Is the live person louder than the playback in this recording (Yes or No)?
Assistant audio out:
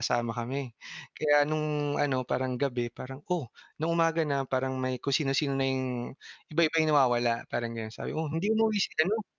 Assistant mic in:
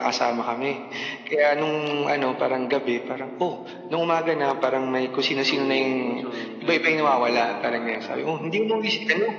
No